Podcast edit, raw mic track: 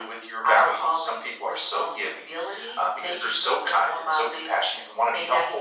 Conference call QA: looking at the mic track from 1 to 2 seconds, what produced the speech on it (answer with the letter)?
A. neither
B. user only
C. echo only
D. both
C